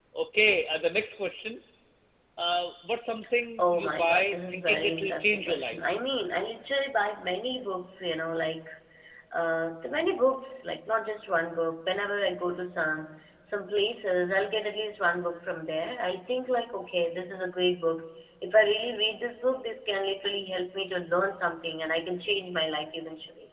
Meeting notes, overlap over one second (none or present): present